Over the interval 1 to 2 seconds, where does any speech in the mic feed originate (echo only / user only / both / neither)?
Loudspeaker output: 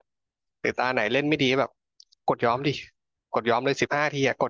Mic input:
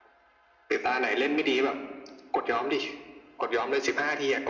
both